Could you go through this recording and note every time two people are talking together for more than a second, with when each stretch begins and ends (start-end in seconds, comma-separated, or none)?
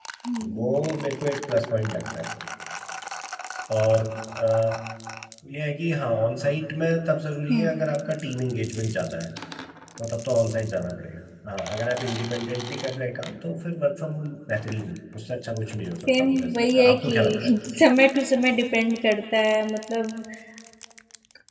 16.1-17.6